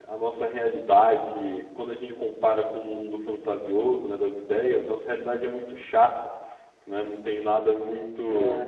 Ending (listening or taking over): listening